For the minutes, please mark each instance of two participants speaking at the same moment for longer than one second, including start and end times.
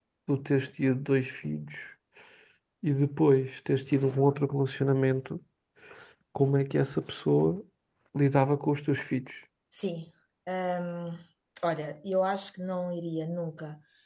none

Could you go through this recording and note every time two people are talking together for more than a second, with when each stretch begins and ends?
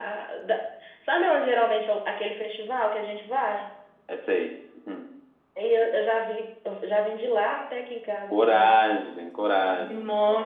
none

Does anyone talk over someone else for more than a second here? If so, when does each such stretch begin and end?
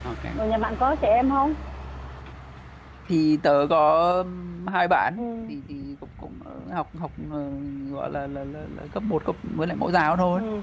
none

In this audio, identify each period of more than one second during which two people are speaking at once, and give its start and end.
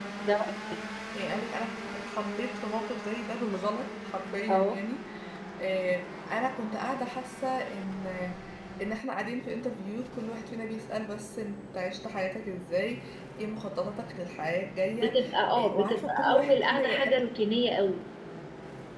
15.6-17.2

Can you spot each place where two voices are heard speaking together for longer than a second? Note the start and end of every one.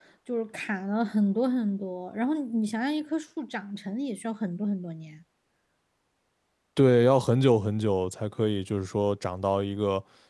none

